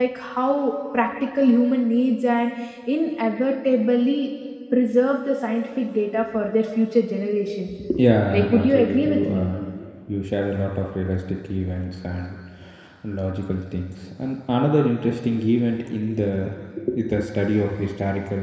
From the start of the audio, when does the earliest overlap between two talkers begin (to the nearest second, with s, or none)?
8 s